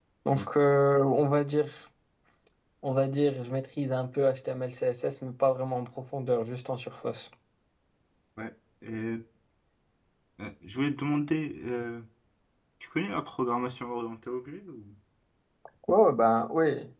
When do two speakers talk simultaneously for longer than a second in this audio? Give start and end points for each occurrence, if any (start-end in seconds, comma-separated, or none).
none